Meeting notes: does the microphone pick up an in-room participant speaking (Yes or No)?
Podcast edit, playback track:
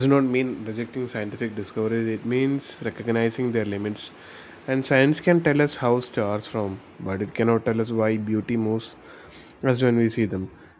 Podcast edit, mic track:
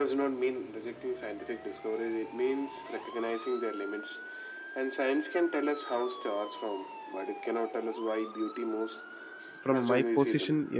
Yes